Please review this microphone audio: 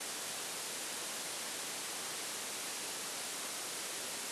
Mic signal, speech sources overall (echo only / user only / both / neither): neither